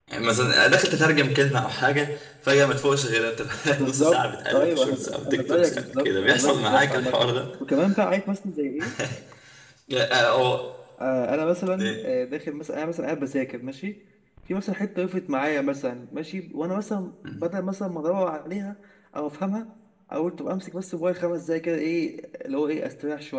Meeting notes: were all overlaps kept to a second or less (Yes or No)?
No